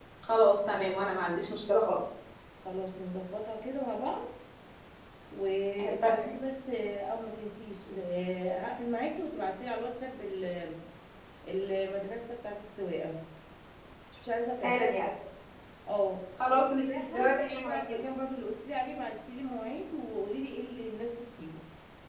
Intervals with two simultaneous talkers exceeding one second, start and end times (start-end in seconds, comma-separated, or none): 16.5-18.0